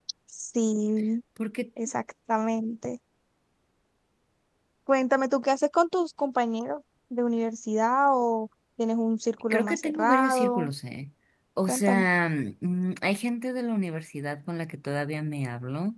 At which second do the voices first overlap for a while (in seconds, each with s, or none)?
9.5 s